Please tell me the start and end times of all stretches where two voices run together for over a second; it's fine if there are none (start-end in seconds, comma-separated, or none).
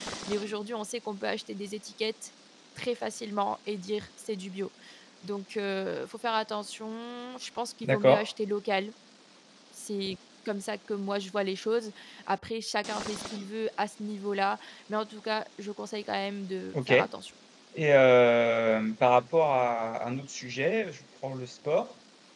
none